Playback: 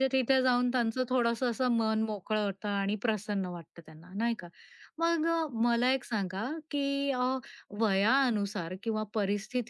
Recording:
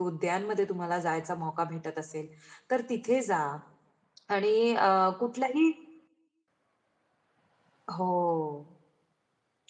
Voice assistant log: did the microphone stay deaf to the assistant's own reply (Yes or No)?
Yes